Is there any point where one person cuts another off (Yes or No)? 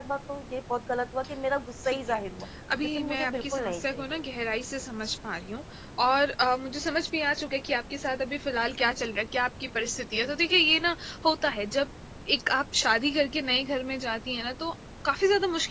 Yes